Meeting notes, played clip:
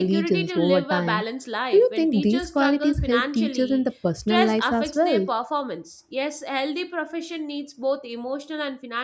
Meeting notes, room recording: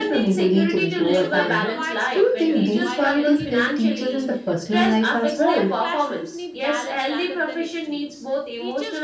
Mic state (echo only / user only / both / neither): both